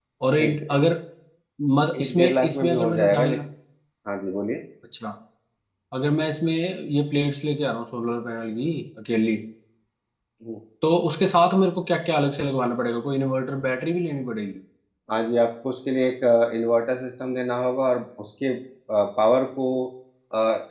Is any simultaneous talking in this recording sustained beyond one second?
Yes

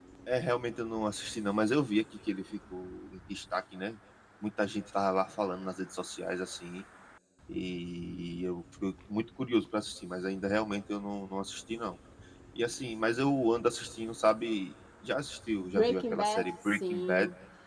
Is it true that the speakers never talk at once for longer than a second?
No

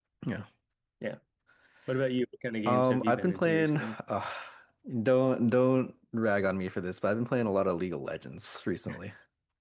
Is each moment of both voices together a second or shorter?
No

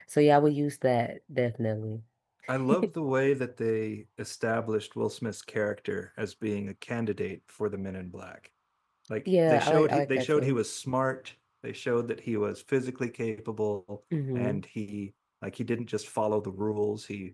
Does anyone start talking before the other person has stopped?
Yes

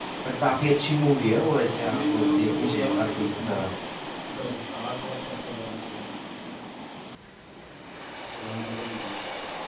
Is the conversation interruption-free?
No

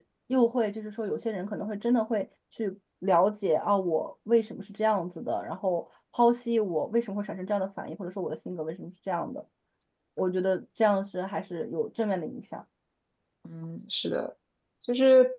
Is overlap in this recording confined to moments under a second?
Yes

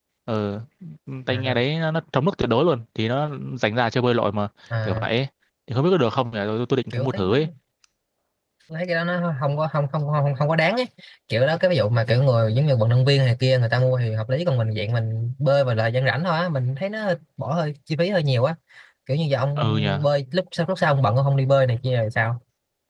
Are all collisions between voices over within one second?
Yes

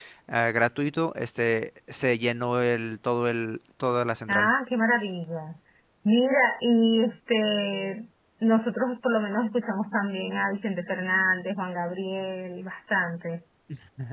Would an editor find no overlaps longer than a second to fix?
Yes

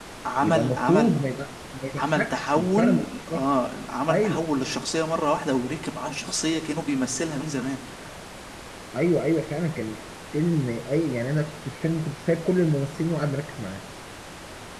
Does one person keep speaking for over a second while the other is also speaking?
Yes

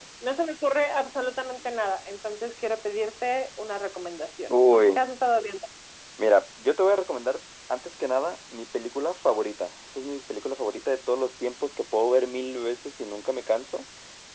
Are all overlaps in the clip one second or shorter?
Yes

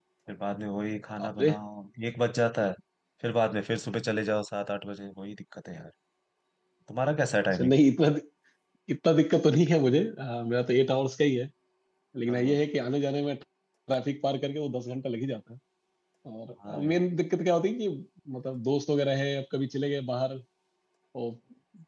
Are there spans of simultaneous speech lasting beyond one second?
No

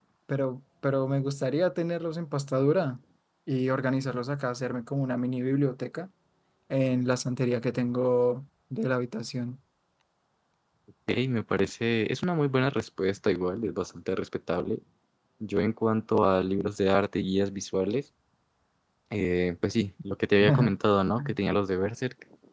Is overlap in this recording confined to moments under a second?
Yes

